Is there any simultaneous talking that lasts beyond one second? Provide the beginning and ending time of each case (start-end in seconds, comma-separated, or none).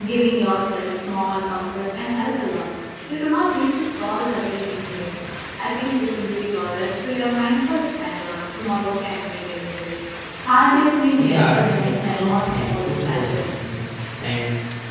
11.1-13.4